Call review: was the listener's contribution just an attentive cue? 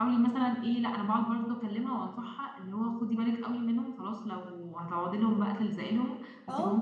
Yes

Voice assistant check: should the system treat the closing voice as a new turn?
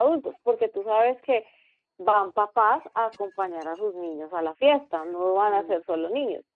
No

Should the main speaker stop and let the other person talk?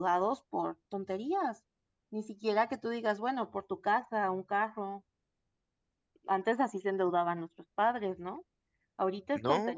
No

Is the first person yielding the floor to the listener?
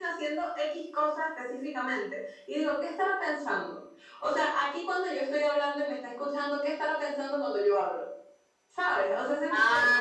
Yes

